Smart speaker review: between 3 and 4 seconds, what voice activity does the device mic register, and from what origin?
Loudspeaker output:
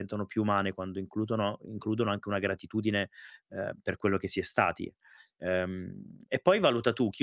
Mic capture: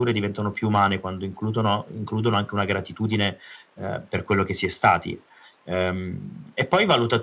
echo only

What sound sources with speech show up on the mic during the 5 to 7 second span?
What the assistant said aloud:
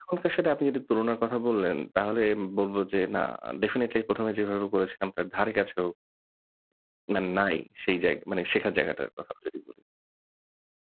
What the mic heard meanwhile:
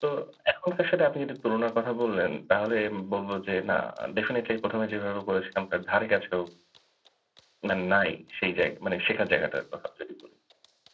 echo only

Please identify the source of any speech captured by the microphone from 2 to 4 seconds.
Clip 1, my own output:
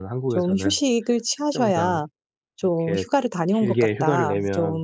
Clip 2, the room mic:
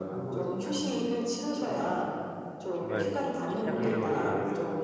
both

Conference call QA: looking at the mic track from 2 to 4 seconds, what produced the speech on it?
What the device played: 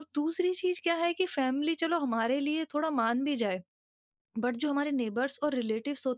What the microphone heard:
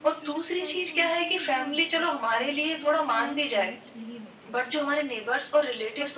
both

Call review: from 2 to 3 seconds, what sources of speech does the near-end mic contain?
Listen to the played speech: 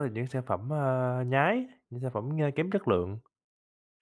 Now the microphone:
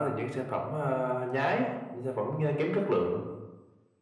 echo only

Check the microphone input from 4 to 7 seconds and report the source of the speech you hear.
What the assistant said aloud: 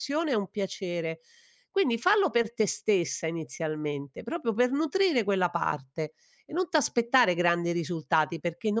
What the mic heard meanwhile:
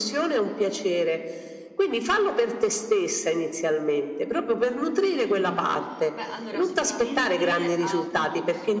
both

